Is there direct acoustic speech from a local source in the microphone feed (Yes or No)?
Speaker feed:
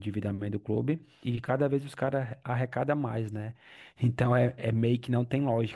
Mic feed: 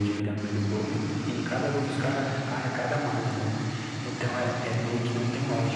No